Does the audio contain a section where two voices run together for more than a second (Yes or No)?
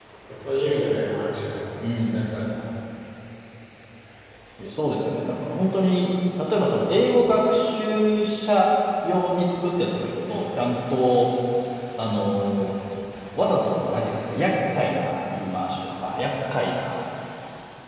No